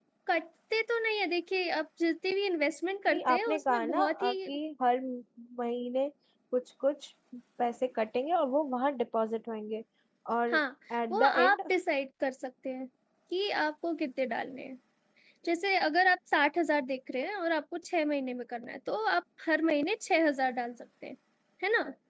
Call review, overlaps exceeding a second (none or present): present